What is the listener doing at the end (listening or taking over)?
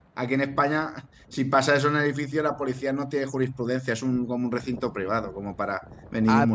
taking over